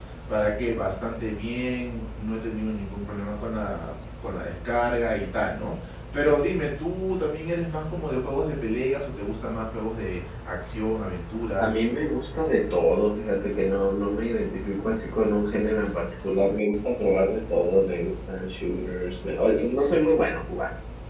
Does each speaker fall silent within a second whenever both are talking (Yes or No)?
Yes